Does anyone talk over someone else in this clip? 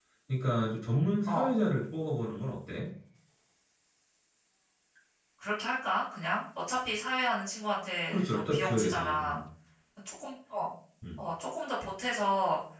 Yes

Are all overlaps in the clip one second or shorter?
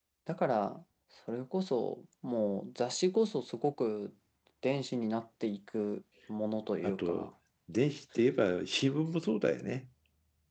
Yes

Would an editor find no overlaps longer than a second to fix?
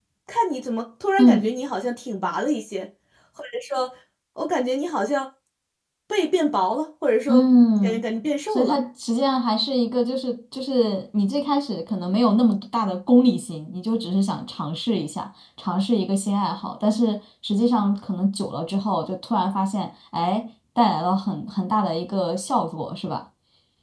Yes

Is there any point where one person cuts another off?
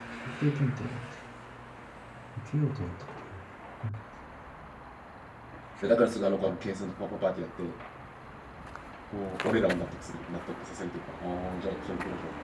No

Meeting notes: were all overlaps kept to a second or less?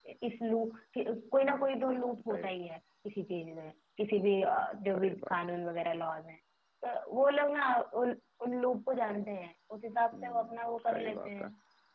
No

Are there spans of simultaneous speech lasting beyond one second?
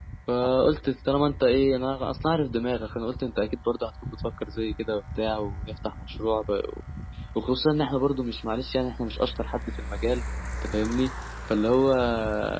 No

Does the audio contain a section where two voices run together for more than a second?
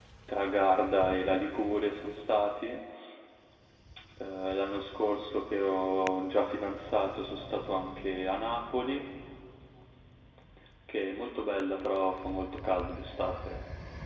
No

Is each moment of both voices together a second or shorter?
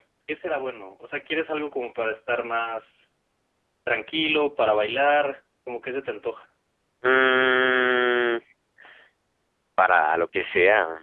Yes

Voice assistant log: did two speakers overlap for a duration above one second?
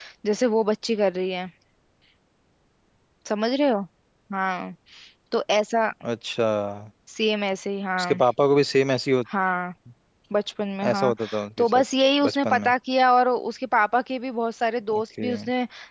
No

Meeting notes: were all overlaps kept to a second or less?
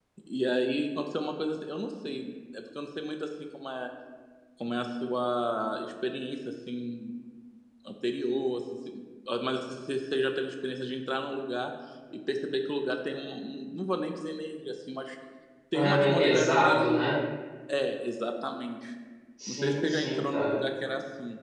No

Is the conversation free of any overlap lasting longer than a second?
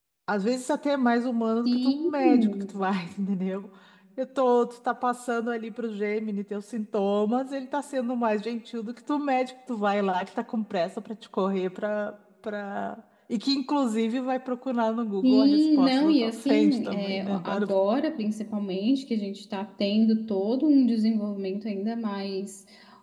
No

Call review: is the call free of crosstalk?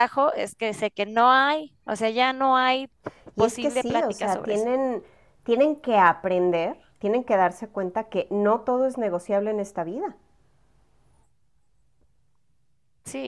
No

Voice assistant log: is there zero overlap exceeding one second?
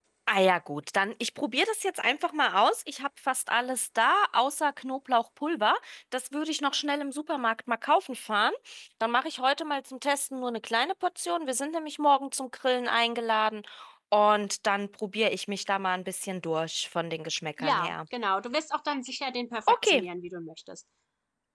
Yes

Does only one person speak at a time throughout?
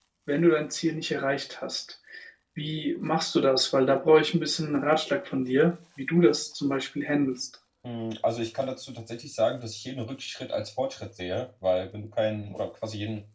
Yes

